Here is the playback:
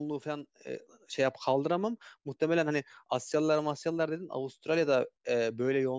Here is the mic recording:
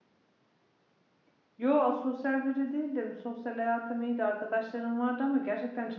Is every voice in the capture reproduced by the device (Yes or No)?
No